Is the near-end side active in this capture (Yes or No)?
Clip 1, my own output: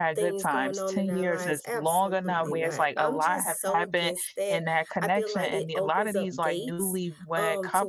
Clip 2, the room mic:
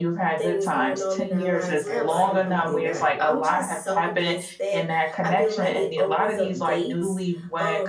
Yes